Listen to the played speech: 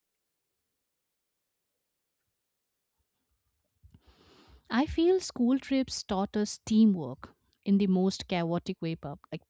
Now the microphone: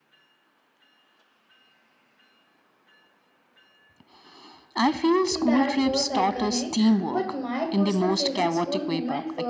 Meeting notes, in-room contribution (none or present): present